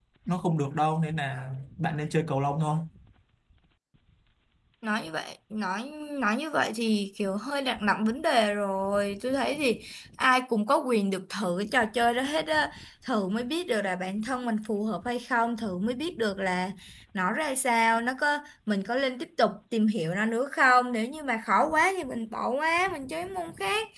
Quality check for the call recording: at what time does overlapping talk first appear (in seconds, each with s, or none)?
none